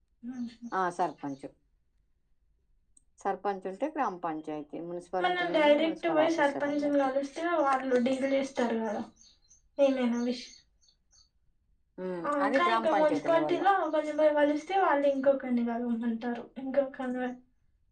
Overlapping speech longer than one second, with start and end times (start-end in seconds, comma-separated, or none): 5.2-6.9, 12.3-13.7